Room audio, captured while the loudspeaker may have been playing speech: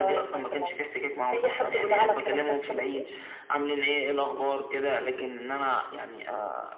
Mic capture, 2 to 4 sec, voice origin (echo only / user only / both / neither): echo only